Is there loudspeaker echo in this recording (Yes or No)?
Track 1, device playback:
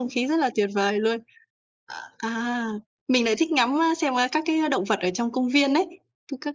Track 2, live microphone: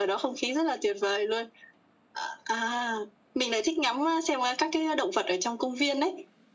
Yes